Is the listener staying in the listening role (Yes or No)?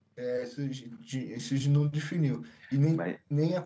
Yes